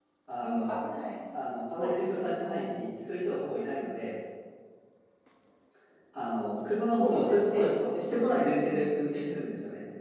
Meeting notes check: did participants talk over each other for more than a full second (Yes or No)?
Yes